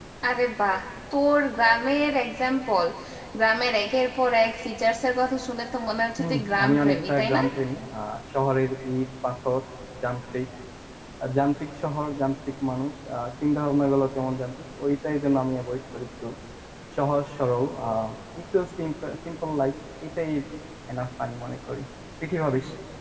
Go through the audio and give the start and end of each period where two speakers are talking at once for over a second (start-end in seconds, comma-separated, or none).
6.2-7.4